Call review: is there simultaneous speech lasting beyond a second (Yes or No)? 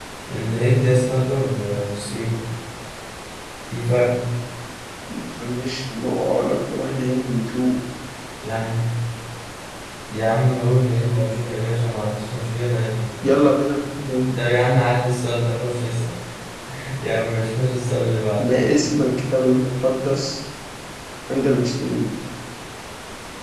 No